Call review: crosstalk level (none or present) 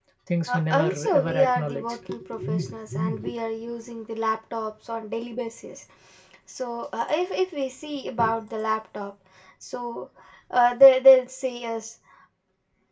present